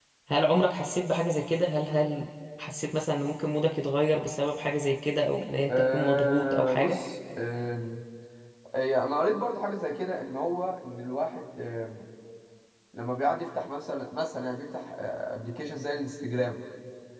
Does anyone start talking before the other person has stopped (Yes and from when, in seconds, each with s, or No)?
Yes, from 5.7 s